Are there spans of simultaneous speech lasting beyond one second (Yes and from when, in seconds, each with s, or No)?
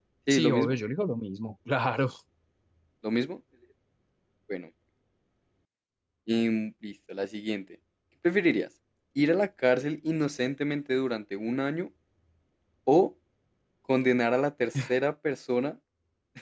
No